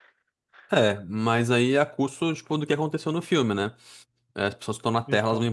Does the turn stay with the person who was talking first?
Yes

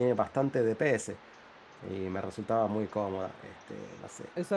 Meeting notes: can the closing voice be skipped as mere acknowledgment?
No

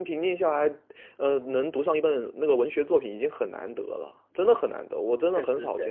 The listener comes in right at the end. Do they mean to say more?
Yes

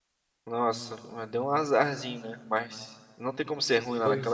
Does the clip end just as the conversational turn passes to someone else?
No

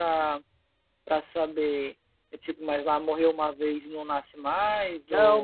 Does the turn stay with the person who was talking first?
No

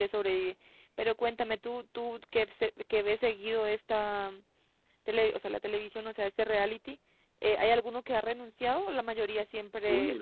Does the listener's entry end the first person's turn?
Yes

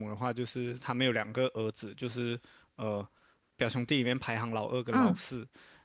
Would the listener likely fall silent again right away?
Yes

